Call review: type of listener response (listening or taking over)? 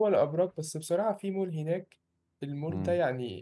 listening